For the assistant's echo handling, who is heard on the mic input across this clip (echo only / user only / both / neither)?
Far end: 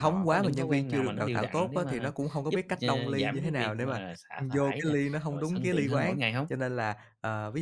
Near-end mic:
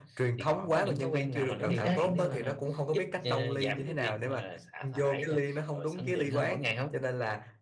both